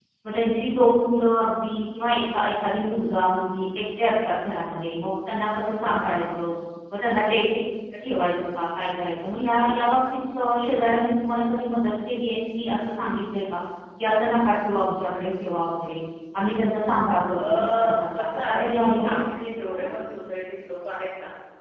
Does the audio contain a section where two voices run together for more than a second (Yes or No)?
Yes